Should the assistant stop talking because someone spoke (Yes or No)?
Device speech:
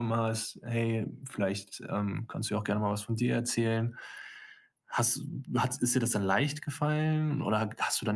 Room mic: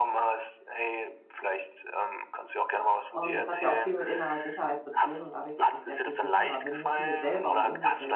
Yes